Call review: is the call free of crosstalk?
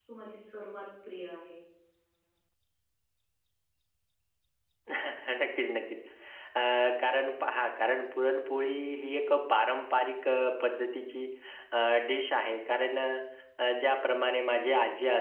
Yes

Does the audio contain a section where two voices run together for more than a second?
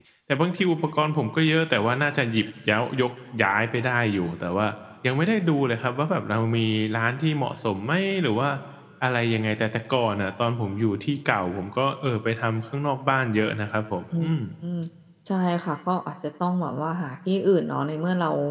No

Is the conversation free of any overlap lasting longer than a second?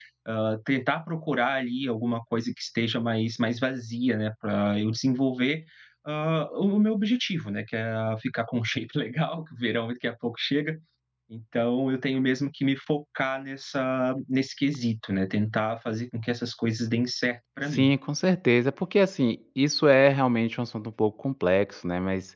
Yes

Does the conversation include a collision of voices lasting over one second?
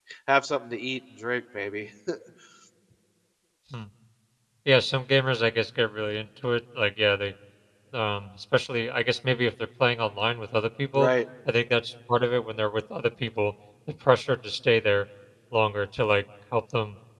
No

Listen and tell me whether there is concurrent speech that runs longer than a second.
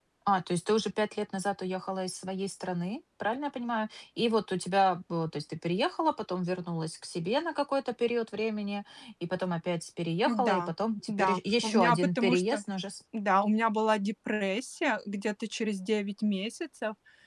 Yes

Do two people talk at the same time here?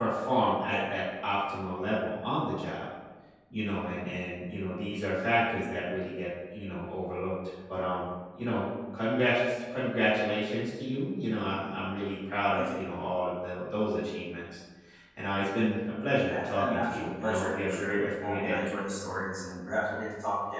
Yes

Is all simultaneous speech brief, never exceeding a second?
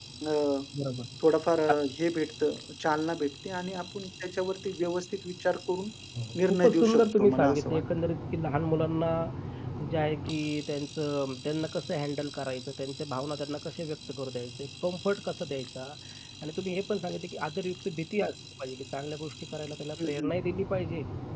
No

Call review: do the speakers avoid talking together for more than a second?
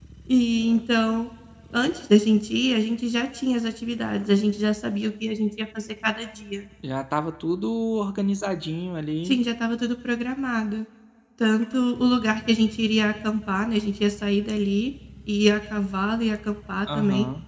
Yes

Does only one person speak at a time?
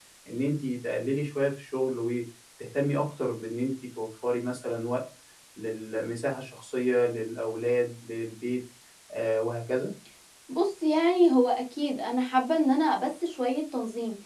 Yes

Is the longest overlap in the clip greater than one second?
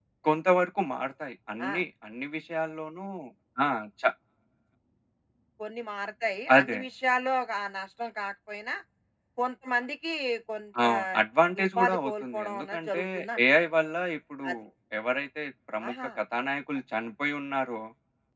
Yes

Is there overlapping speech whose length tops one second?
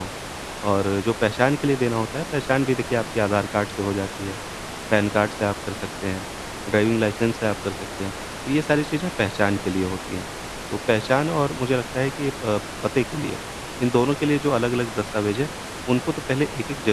No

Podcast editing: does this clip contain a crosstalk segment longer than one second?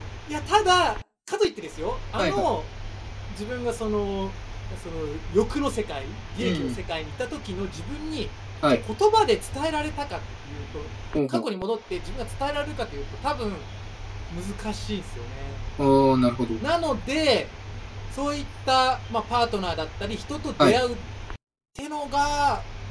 No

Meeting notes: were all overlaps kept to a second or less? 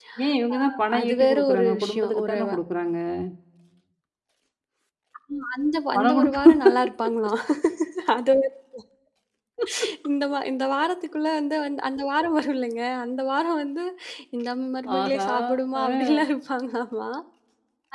No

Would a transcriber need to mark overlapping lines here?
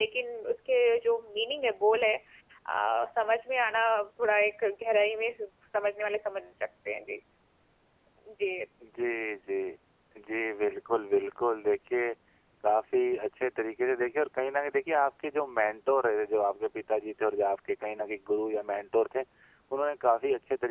No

